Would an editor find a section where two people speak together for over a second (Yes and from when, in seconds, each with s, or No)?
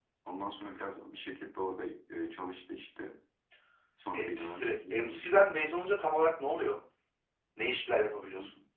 Yes, from 4.1 s